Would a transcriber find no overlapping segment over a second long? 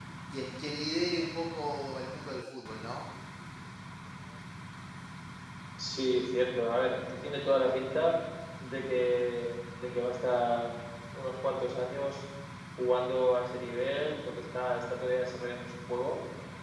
Yes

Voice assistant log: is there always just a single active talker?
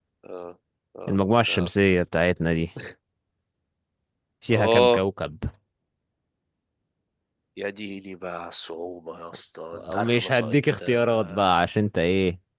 No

